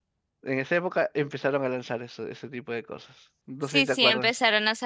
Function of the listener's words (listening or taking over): taking over